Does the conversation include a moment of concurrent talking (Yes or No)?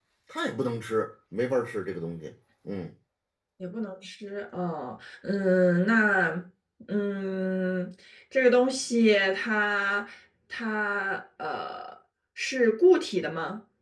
No